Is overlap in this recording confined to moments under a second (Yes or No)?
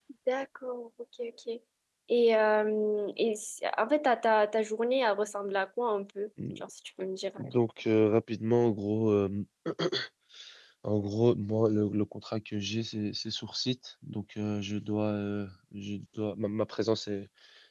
Yes